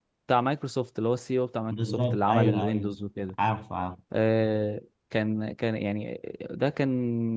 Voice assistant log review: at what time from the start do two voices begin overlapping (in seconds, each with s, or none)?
1.7 s